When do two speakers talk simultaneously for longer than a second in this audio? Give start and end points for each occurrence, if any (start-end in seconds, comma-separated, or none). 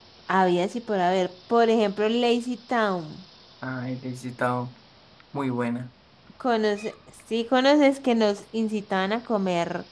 none